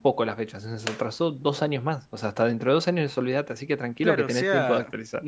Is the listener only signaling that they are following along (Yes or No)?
No